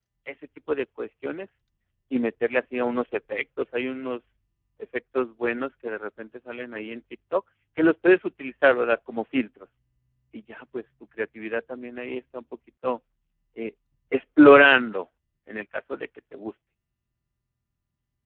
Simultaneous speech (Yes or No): No